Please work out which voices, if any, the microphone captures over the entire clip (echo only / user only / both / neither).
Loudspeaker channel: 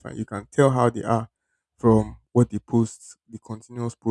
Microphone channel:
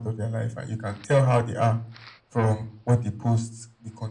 echo only